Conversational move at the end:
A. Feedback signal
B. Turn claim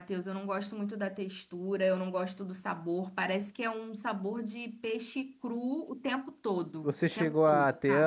B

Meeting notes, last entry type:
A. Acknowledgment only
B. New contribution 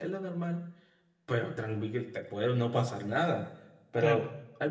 A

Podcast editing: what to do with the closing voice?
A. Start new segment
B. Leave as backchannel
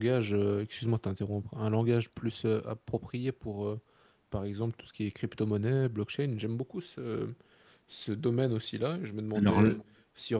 B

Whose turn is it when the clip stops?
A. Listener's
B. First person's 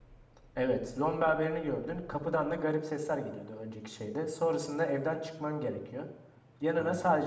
B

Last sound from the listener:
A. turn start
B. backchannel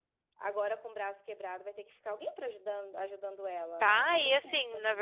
A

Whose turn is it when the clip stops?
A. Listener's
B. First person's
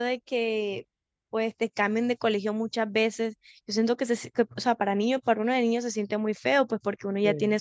B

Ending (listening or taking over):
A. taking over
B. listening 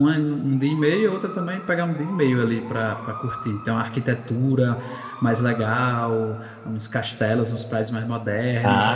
B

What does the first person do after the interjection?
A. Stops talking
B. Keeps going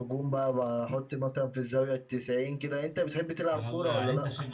A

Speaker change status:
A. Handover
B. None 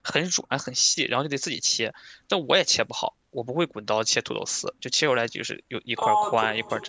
A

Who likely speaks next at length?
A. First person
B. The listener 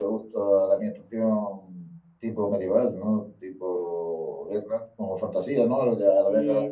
B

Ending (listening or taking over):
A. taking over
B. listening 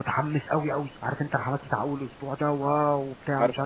B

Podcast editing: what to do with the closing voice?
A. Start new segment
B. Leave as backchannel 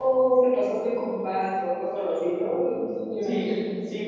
A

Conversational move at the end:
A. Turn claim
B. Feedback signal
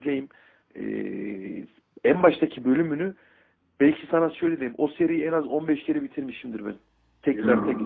B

